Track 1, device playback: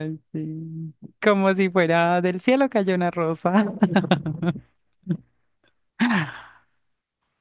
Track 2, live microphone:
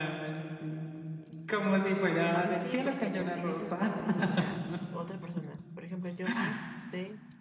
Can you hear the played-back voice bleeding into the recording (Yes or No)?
Yes